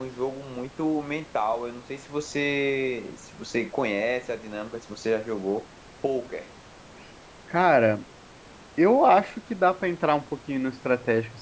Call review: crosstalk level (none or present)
none